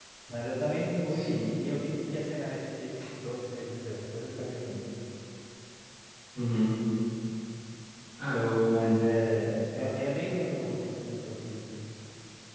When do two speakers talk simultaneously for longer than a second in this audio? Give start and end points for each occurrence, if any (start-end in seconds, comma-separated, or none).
none